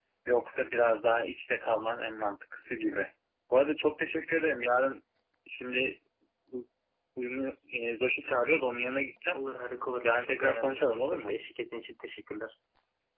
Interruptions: present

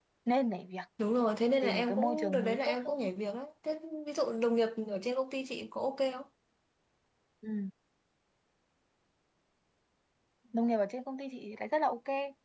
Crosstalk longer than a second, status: present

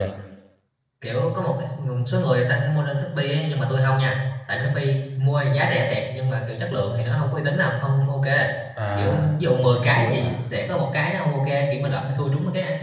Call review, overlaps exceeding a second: present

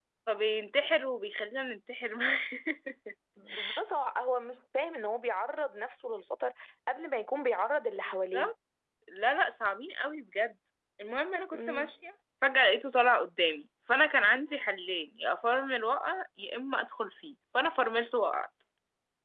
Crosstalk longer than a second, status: none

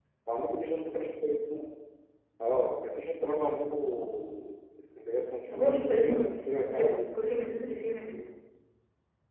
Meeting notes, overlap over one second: present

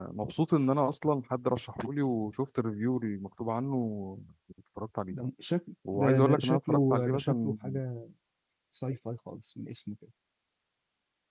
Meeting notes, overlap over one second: present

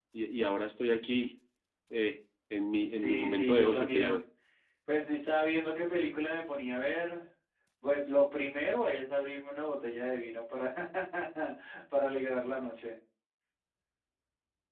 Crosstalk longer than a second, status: present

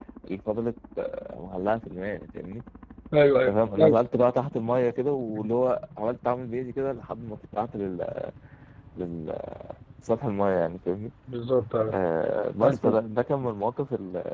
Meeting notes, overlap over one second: none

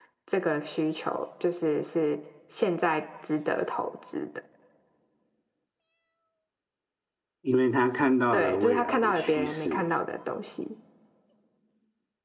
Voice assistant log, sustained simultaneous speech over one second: present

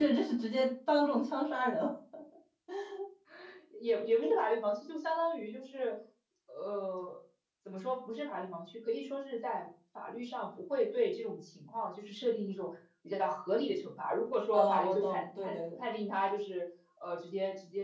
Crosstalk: present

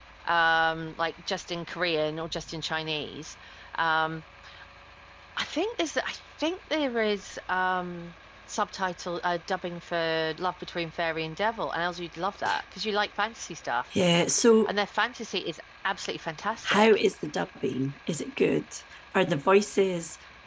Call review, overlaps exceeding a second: none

